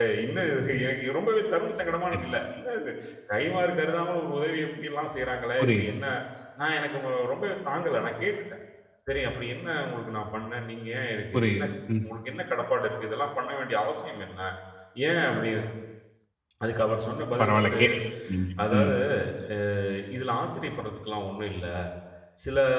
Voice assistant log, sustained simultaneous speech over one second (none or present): none